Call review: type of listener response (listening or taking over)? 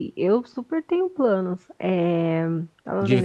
taking over